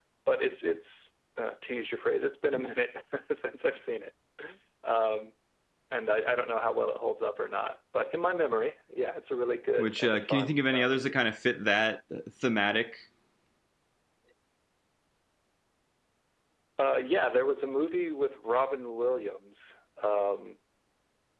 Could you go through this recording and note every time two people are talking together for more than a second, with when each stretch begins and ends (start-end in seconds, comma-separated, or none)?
9.8-11.1